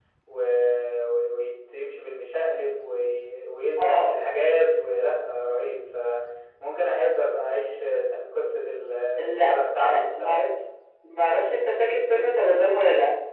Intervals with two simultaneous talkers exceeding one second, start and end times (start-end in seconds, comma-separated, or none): 9.2-10.5